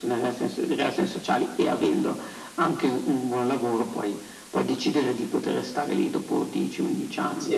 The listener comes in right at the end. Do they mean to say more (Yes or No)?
Yes